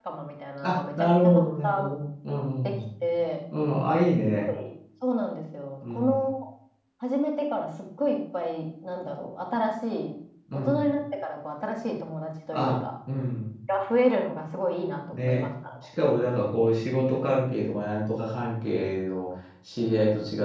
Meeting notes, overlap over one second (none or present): present